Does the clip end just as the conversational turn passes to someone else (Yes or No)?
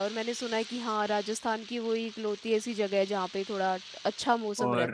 Yes